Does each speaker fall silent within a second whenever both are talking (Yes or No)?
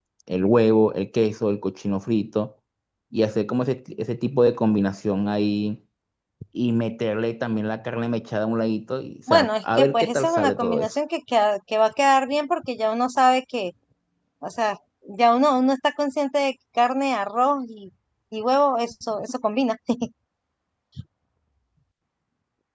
No